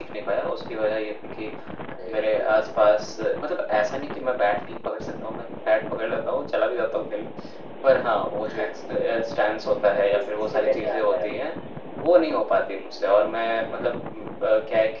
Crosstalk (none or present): present